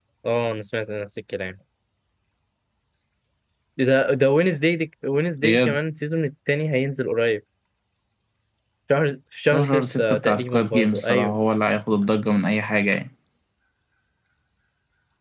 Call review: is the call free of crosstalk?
No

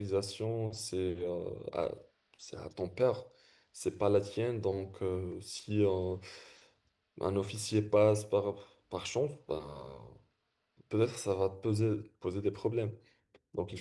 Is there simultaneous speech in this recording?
No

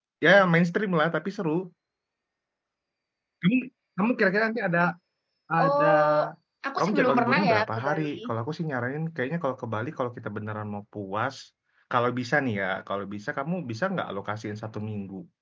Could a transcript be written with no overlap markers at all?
No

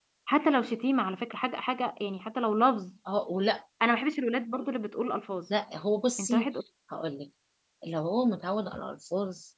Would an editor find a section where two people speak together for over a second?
No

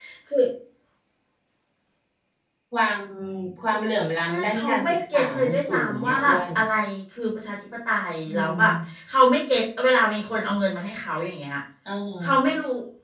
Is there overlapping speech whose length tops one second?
Yes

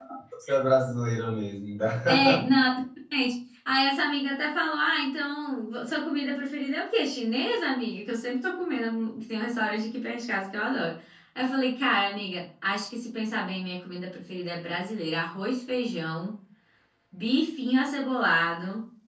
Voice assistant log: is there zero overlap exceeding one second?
Yes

